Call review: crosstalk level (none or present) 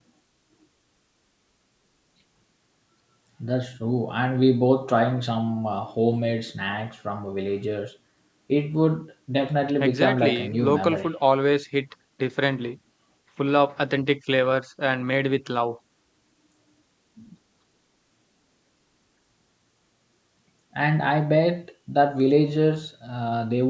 present